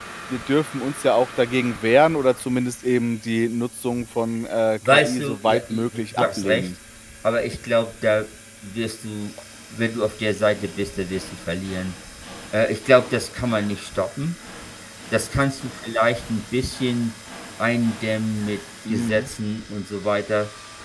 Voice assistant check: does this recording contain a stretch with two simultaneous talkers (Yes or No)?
Yes